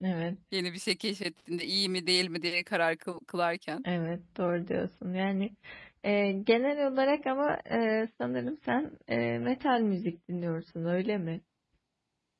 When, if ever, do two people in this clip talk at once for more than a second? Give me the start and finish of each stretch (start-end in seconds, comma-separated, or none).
none